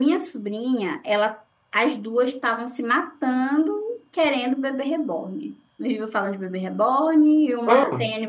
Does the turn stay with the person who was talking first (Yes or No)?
Yes